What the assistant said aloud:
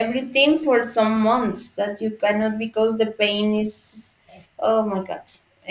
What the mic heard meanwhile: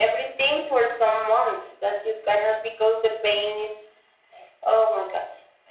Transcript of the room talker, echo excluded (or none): none